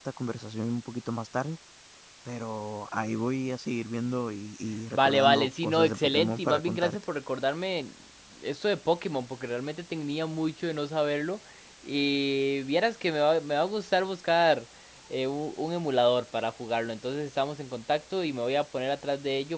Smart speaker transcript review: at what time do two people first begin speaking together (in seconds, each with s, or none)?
4.7 s